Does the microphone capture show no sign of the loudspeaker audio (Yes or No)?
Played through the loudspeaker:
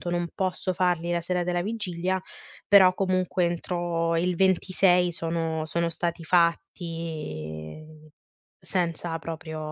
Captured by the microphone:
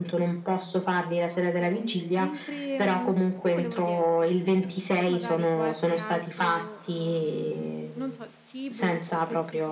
No